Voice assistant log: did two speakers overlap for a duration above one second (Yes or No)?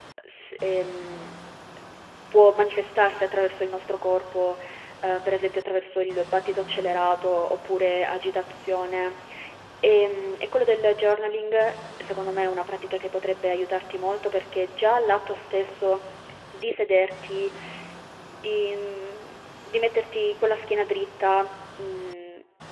No